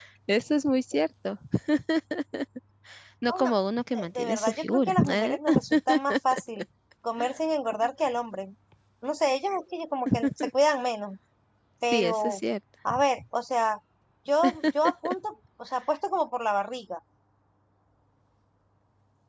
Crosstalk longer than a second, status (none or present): present